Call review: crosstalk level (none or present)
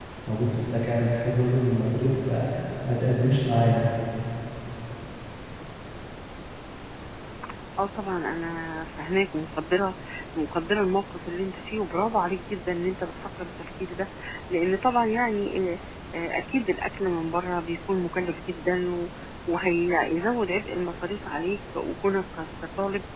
none